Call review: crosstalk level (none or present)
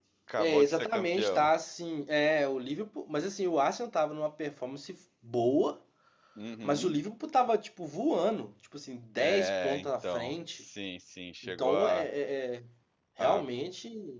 present